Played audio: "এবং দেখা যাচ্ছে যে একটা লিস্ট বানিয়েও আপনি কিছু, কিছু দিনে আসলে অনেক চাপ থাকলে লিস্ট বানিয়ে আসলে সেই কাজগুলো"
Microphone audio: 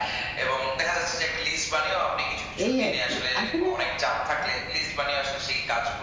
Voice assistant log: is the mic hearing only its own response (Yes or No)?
No